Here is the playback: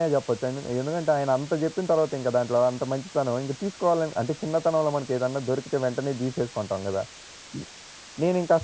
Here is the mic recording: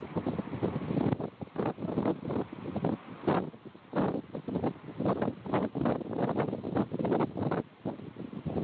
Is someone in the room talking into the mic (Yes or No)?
No